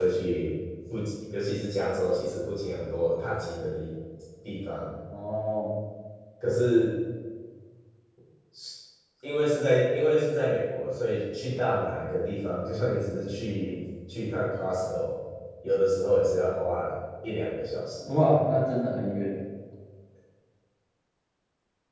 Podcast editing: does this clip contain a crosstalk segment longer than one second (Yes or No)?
No